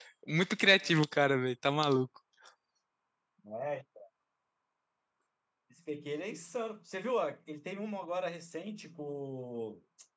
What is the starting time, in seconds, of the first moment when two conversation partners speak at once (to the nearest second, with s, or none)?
none